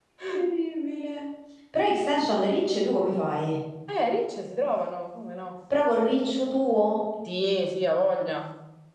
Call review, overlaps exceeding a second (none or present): none